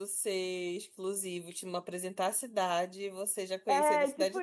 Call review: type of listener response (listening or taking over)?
taking over